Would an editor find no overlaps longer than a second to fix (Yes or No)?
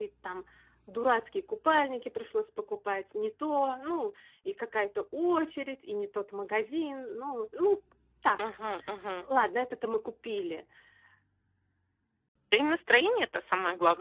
Yes